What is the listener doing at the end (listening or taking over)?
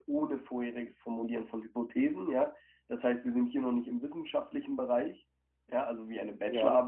listening